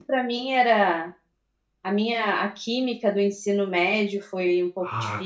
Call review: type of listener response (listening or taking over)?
taking over